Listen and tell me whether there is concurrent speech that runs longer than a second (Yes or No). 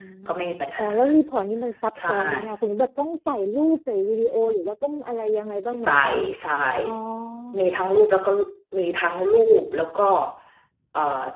No